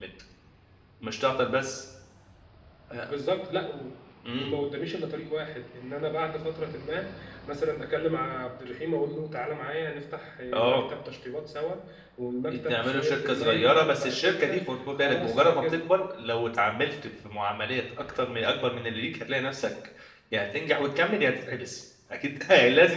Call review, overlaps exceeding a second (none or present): present